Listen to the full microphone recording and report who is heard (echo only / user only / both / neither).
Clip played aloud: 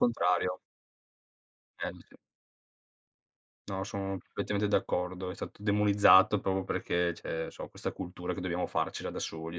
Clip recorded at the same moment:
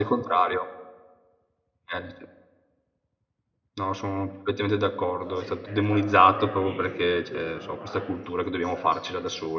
both